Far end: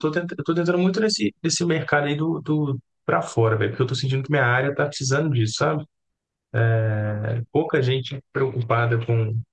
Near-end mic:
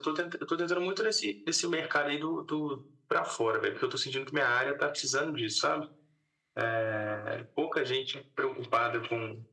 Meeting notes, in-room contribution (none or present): none